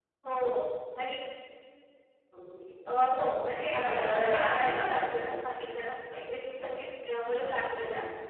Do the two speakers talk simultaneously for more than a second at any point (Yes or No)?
Yes